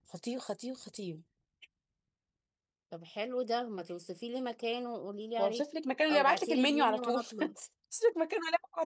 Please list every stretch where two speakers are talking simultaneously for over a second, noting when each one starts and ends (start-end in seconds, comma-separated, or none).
6.1-7.5